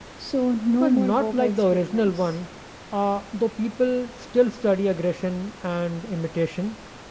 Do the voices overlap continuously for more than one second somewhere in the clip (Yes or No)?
Yes